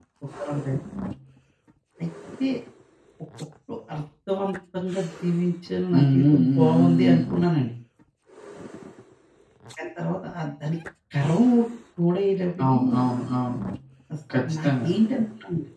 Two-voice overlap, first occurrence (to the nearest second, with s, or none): 6 s